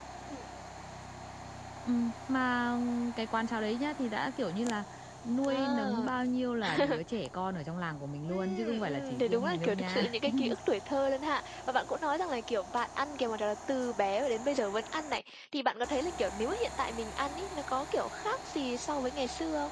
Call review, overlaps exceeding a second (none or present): present